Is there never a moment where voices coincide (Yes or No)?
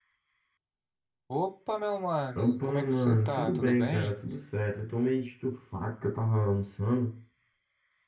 No